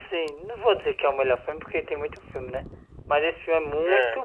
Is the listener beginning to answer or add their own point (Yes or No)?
No